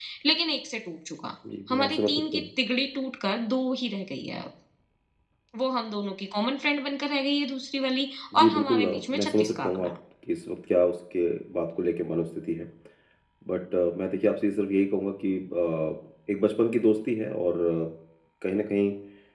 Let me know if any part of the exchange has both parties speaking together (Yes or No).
Yes